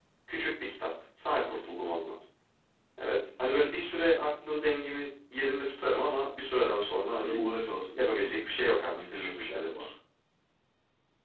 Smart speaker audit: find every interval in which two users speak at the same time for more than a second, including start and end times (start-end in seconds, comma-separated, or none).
8.0-9.9